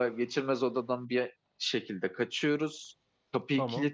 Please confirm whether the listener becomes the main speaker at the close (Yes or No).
No